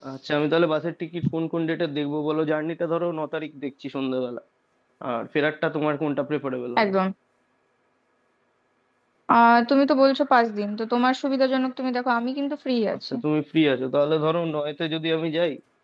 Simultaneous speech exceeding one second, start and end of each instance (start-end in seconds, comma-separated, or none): none